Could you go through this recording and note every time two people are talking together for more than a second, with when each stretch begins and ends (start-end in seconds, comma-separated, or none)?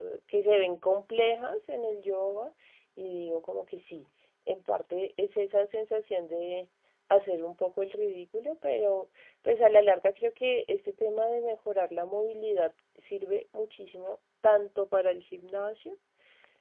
none